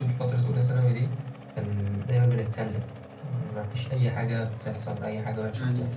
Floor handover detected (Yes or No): Yes